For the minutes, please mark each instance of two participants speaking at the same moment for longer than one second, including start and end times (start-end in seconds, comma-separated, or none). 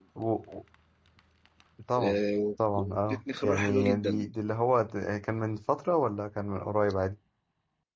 2.7-4.3